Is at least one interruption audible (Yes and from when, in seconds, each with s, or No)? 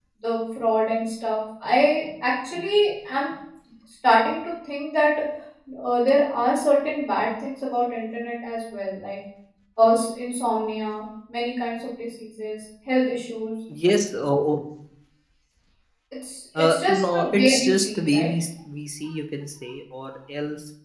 Yes, from 16.6 s